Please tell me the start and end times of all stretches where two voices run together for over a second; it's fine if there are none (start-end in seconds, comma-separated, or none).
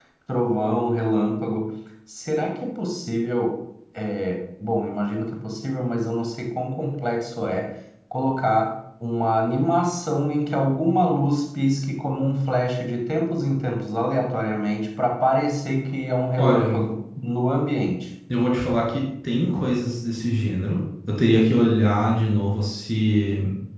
none